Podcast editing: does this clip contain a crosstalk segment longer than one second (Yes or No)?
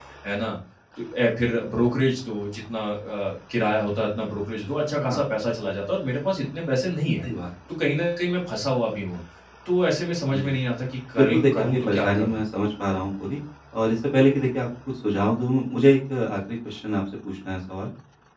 Yes